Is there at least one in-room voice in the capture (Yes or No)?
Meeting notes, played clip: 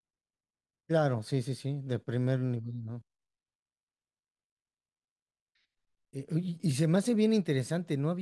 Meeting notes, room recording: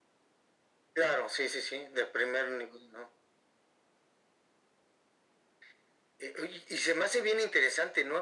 No